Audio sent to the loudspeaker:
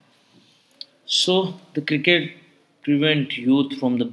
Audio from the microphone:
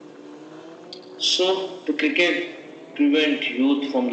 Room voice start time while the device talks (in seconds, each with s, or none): none